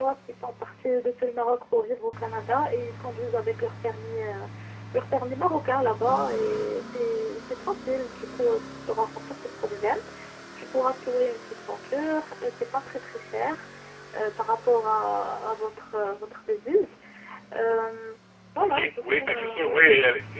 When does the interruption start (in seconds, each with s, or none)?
18.6 s